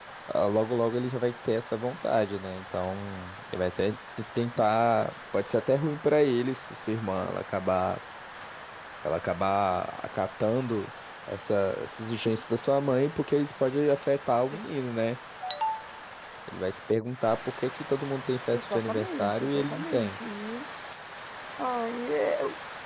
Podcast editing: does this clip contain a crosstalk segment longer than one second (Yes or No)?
Yes